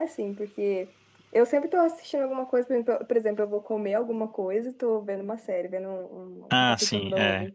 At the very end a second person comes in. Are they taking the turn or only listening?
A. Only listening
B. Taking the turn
B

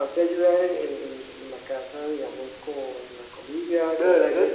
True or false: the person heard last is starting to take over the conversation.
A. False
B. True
B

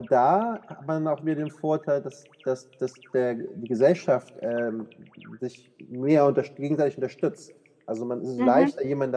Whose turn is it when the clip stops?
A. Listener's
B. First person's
B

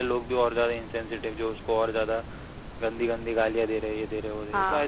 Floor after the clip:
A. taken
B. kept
A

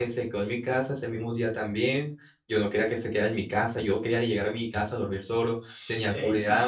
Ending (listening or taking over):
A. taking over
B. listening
A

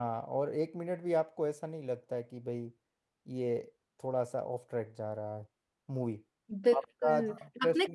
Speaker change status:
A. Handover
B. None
A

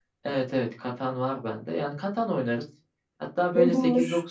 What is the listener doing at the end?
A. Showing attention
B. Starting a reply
A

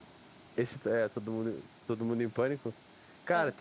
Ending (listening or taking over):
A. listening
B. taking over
A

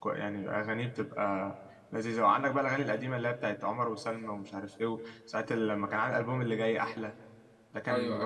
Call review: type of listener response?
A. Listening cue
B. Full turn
A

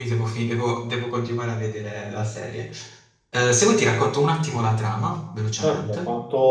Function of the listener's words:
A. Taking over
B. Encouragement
A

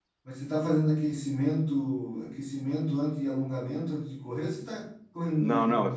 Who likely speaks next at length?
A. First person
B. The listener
B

